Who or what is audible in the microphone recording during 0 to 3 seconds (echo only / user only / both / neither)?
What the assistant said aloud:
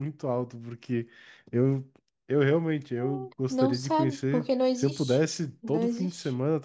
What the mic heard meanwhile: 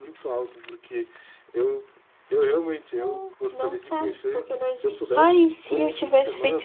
echo only